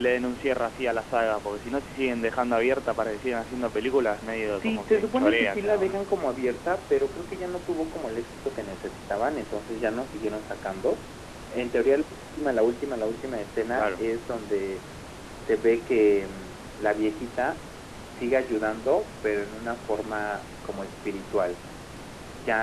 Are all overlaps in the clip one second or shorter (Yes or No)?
No